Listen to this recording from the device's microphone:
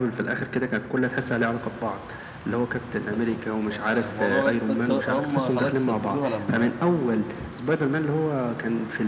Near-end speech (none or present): present